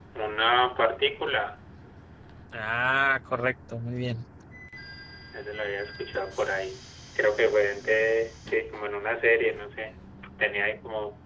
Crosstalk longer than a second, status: none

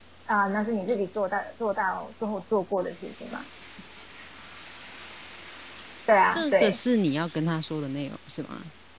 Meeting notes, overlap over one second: none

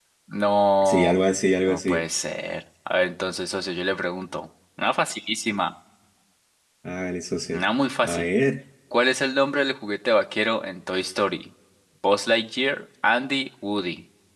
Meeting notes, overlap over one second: none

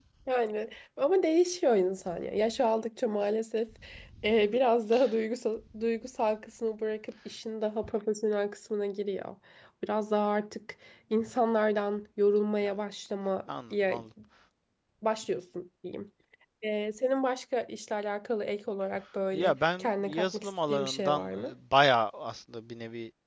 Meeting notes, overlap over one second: present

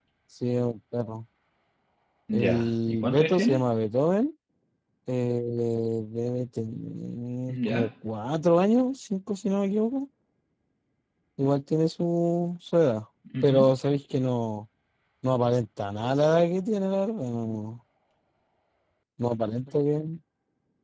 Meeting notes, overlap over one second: present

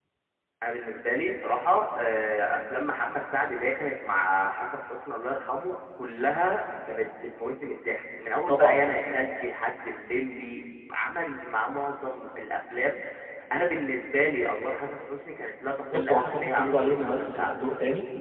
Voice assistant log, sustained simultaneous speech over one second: present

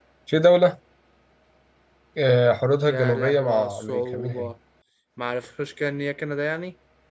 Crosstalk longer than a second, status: present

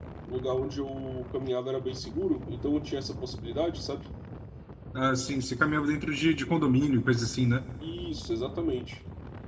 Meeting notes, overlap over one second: none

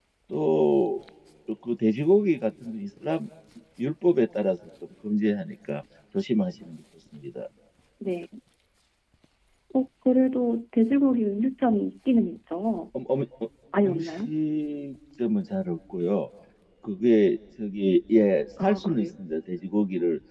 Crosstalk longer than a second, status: none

